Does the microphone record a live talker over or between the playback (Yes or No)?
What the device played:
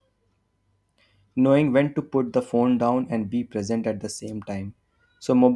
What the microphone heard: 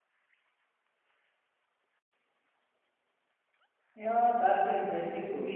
Yes